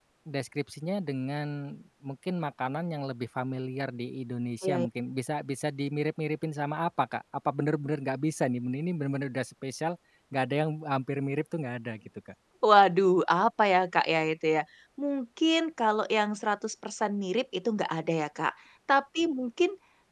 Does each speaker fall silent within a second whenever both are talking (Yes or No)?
Yes